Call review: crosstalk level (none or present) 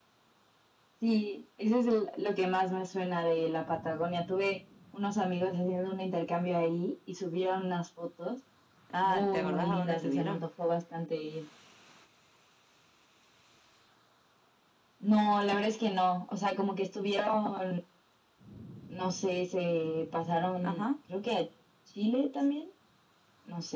present